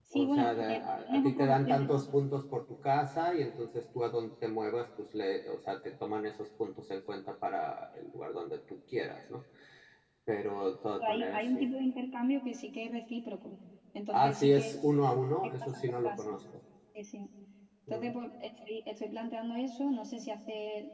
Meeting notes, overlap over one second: present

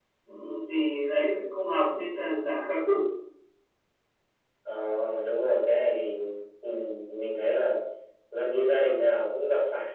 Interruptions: none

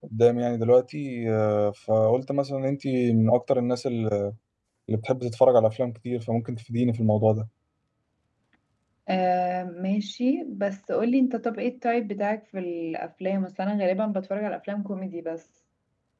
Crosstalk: none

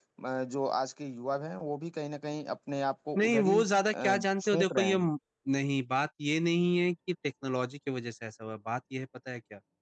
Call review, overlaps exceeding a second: present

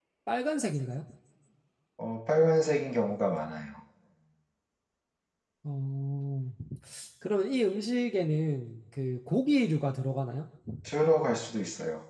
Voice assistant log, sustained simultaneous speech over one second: none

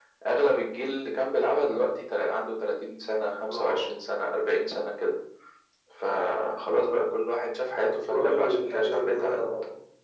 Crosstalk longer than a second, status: present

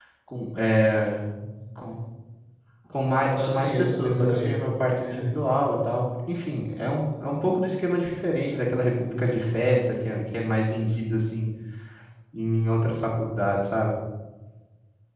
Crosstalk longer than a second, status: present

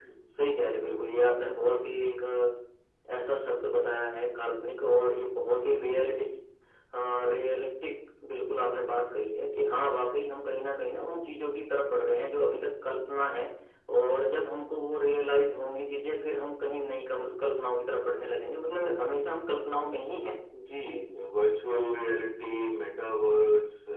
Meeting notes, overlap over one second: none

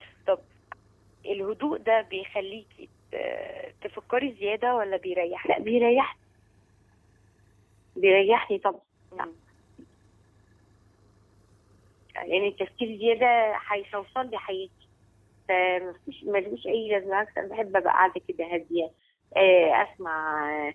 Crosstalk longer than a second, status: none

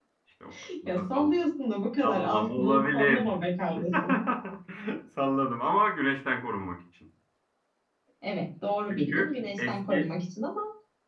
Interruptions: present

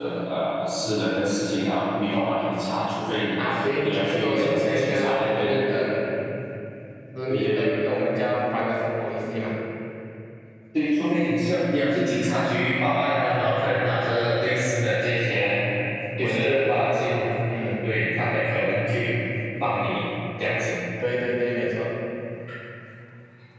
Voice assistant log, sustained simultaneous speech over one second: present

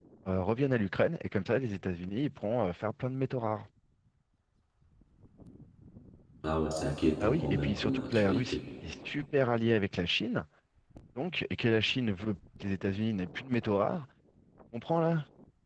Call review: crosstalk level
present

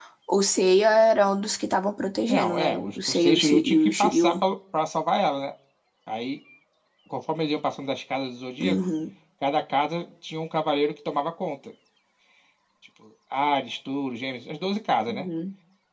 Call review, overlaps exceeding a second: present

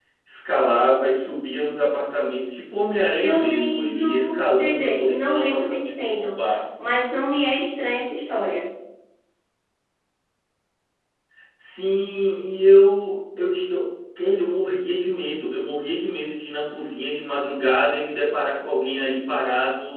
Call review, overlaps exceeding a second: present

